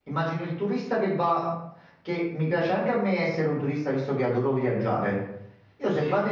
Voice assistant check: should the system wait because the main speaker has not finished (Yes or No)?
Yes